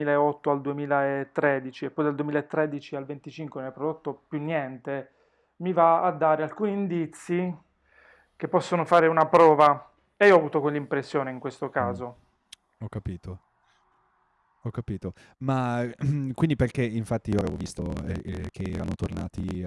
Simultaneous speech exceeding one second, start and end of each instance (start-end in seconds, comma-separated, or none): none